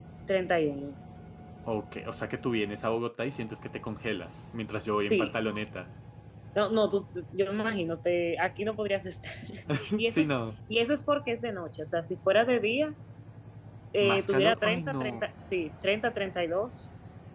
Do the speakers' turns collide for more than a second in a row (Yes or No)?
Yes